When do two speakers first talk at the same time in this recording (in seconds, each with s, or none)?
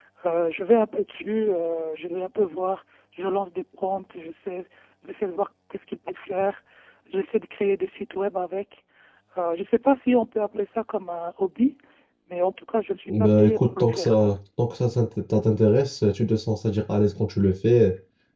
13.1 s